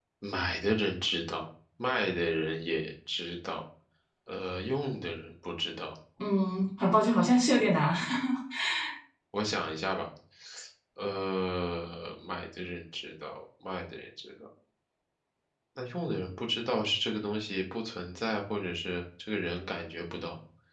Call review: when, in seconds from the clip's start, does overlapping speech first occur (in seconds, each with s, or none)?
none